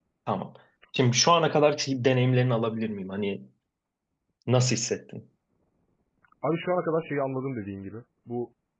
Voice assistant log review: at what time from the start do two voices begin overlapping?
none

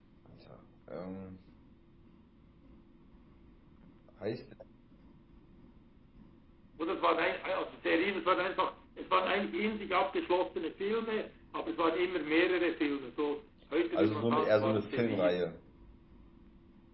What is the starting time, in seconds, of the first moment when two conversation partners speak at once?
14 s

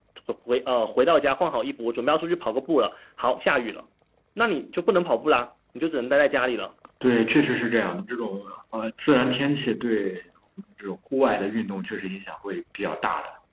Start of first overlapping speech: none

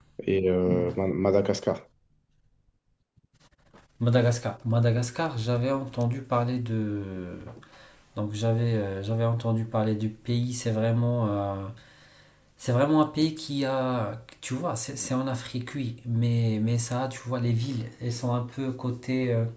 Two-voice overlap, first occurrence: none

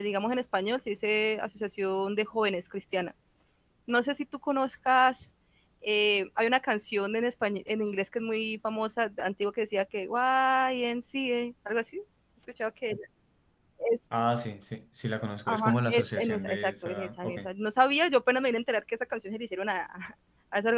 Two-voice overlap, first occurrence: 15 s

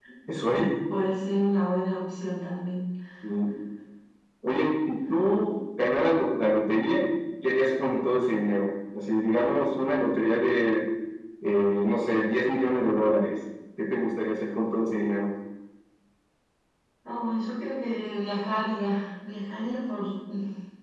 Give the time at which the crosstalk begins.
none

